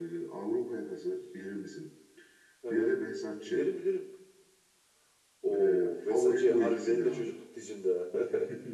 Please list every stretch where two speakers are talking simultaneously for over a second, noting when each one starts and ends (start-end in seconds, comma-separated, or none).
5.5-7.3